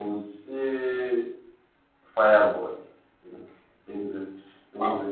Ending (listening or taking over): taking over